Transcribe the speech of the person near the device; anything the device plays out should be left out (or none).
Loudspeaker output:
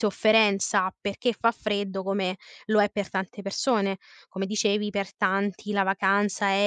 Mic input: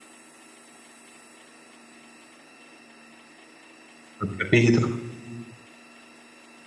ho capito.